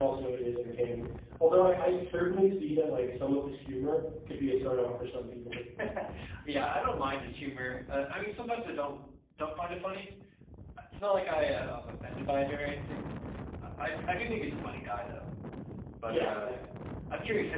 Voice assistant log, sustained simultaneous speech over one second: none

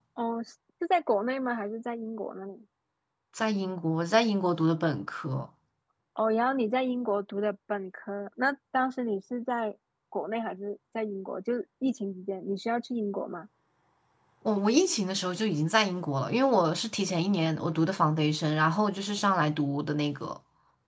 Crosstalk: none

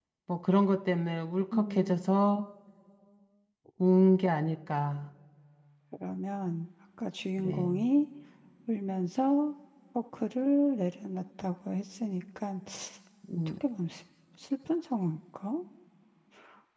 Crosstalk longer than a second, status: none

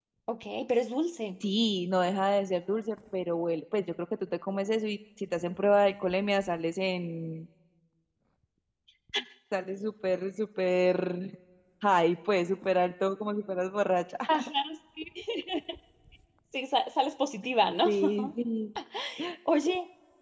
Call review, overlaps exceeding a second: none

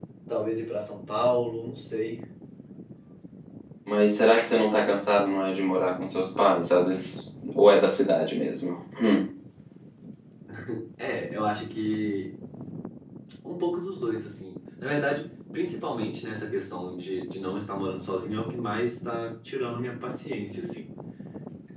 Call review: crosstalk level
none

